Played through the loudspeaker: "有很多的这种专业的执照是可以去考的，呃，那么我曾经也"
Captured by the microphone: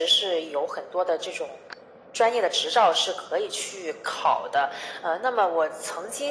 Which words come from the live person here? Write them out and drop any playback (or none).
none